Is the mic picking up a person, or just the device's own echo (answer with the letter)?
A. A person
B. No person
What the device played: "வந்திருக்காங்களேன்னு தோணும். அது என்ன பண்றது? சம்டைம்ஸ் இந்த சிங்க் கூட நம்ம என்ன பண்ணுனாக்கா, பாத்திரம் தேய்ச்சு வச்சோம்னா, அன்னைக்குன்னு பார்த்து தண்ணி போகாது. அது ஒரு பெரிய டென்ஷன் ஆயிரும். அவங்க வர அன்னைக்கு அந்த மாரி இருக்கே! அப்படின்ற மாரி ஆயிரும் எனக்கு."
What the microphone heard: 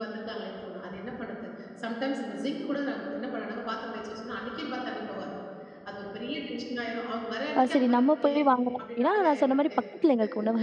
A